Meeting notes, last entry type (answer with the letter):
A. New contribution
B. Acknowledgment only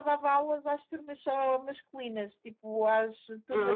B